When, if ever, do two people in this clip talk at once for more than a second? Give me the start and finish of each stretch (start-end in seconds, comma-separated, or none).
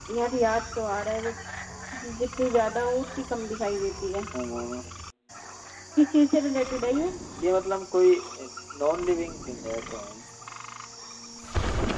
none